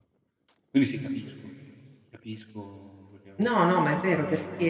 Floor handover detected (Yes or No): Yes